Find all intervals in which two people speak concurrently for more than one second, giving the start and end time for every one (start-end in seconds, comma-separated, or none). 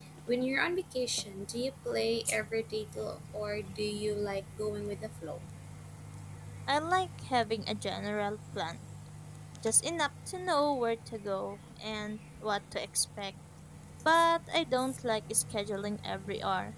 none